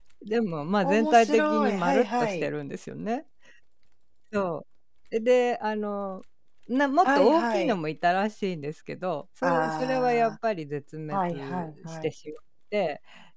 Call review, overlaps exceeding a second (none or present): present